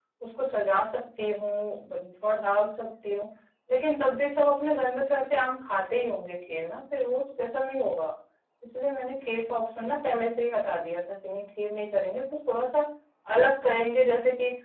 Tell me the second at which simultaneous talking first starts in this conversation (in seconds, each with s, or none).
none